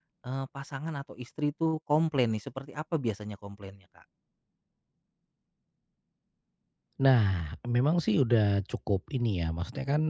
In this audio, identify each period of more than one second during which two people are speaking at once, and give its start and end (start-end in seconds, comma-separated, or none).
none